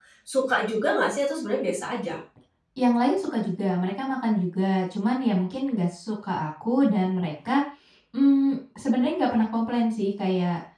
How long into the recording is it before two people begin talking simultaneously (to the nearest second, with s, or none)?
none